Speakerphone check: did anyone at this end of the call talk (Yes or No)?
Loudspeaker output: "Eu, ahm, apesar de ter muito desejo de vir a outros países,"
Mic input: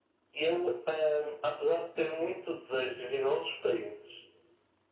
No